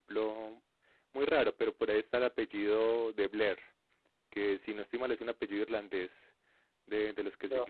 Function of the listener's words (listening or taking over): listening